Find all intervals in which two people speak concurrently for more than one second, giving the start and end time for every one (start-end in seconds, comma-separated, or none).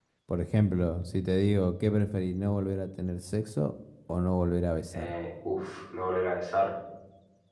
none